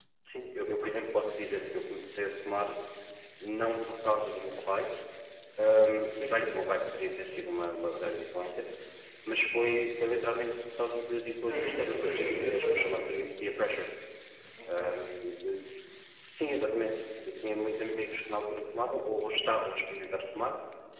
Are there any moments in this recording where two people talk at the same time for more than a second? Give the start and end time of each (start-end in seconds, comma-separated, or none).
11.5-12.9